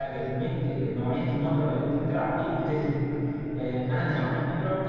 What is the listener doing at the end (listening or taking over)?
listening